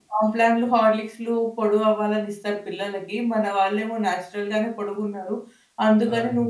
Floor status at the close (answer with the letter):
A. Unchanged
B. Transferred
A